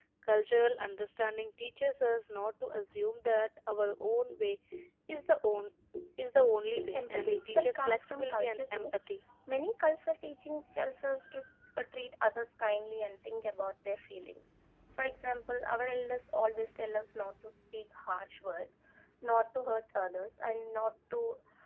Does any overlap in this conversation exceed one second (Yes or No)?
Yes